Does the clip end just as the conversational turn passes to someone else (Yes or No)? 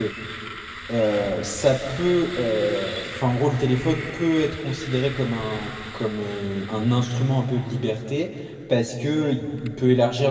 No